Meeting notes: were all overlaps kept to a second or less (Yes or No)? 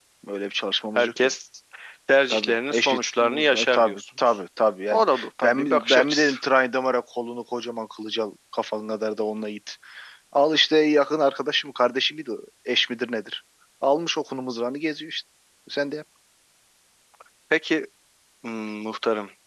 No